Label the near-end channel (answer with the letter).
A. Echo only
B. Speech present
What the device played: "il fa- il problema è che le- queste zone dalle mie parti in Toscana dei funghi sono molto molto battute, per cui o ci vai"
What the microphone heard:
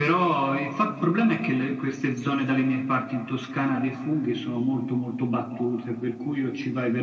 A